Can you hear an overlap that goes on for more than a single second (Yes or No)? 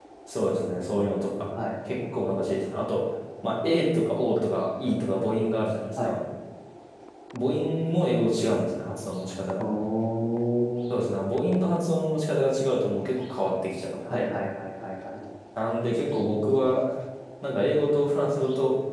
No